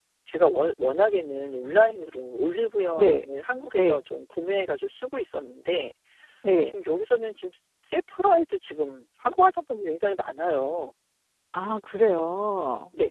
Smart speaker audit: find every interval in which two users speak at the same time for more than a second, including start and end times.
none

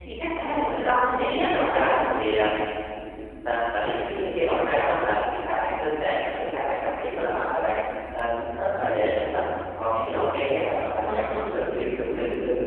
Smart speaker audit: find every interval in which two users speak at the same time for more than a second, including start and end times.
0.5-1.9

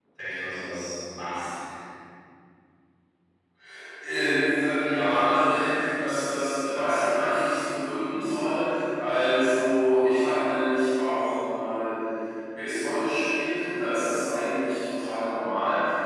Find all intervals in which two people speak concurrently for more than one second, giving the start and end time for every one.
none

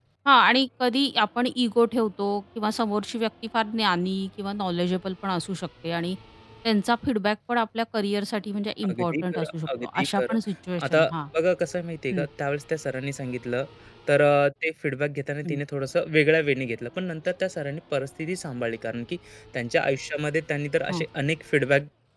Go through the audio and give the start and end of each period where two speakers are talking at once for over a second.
8.9-10.3

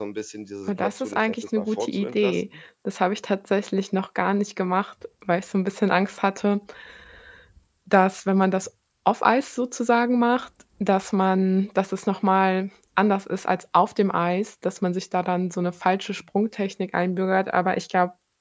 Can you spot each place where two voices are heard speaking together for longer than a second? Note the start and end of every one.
0.7-2.4

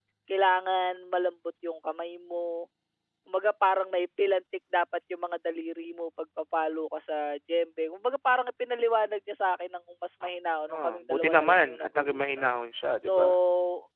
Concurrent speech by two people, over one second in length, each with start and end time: 10.8-12.4

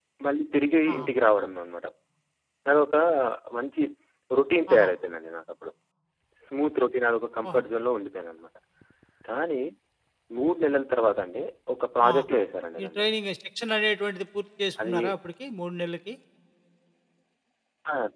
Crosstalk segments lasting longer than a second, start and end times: none

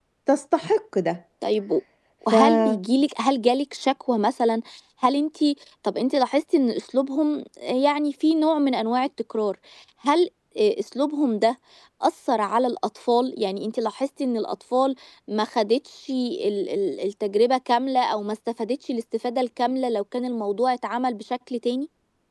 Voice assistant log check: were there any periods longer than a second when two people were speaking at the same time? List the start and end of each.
none

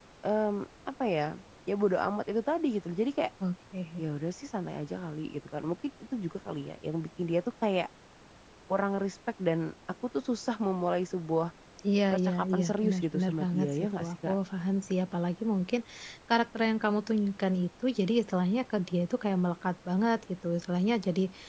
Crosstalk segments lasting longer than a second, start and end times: 12.1-14.3

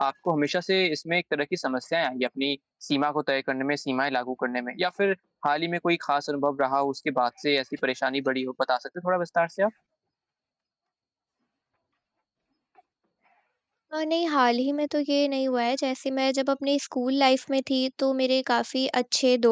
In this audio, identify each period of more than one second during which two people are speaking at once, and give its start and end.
none

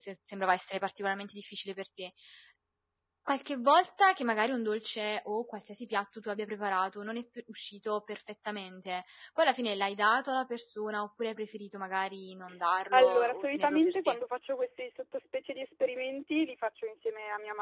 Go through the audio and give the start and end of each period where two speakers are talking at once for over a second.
12.9-14.2

